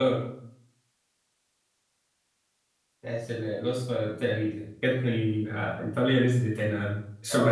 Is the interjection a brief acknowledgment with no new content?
No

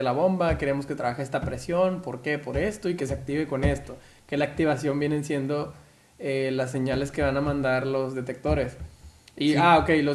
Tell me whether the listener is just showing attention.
Yes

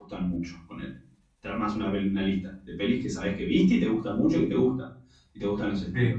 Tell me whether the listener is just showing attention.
Yes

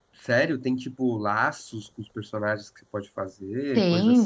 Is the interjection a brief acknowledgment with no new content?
No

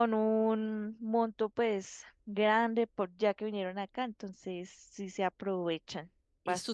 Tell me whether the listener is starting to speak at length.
Yes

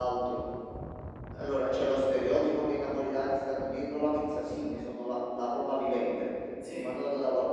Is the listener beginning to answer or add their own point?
No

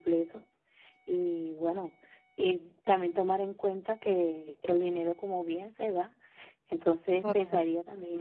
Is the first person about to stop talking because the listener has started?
No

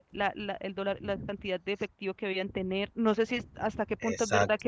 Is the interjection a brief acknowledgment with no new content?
Yes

